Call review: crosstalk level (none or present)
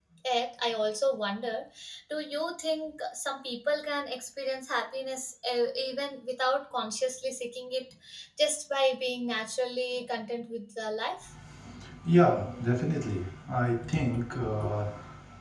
none